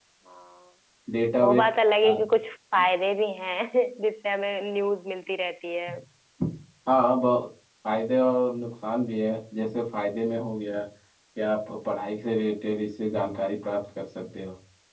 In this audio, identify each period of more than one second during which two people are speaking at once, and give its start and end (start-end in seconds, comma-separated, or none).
none